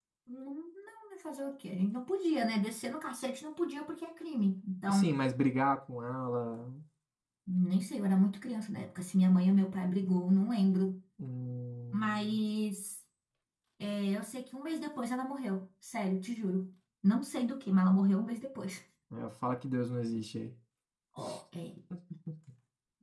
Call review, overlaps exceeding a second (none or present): none